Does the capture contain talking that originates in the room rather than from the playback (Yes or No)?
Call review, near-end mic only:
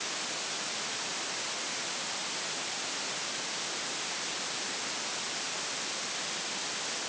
No